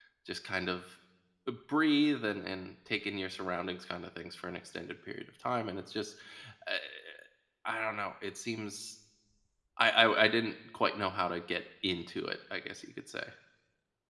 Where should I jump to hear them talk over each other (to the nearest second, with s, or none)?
none